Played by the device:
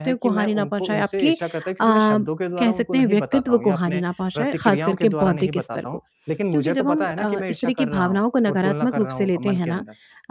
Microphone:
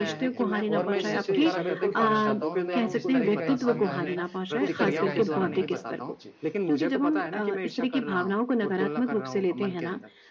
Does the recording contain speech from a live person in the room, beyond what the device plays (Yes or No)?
Yes